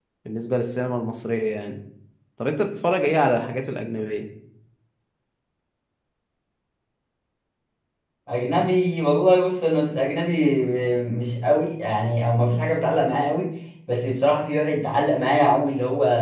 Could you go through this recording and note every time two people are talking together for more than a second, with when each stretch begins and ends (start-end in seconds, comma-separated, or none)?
none